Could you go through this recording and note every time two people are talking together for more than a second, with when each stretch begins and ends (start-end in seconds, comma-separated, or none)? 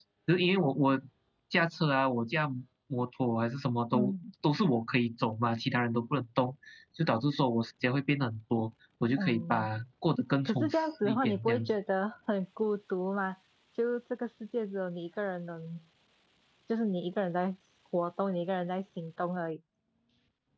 10.4-11.7